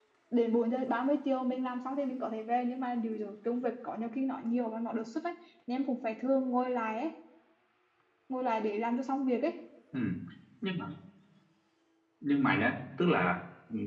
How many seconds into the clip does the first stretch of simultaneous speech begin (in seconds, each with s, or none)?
none